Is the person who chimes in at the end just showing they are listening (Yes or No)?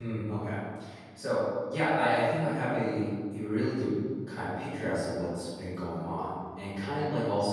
Yes